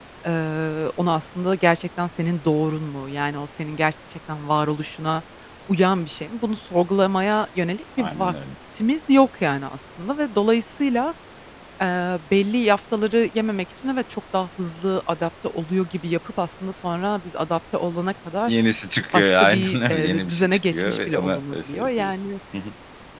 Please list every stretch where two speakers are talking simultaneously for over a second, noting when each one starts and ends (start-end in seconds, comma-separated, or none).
19.1-22.1